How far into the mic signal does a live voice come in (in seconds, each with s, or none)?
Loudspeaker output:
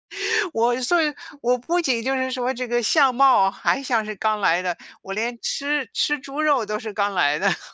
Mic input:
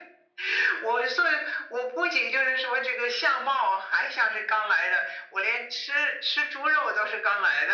none